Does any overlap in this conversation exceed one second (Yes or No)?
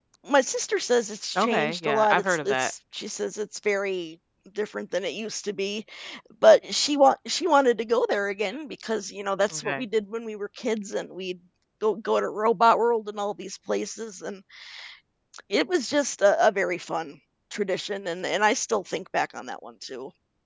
Yes